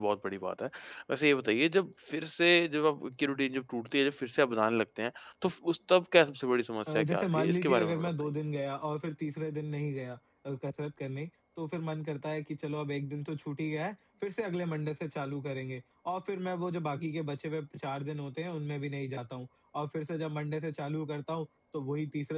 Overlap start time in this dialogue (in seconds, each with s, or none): 6.9 s